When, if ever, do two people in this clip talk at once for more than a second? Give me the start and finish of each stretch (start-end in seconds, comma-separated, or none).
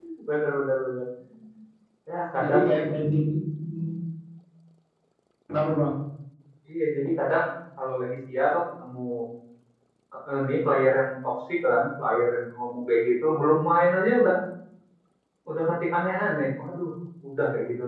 none